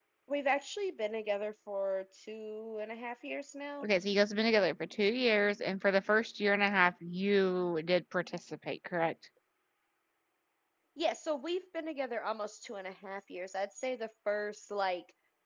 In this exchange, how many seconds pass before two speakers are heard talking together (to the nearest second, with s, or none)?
none